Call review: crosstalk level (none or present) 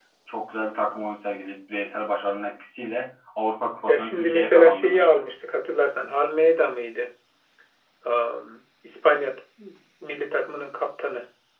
present